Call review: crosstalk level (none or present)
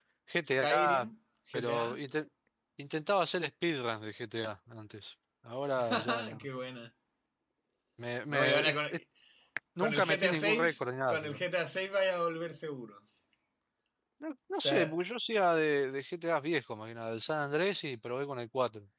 present